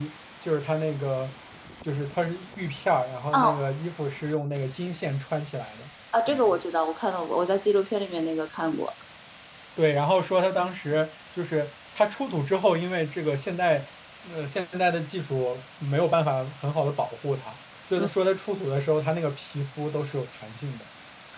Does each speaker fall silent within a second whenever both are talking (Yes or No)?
Yes